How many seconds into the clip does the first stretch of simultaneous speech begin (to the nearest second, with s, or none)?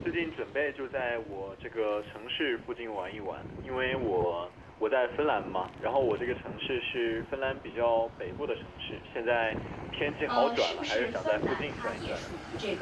10 s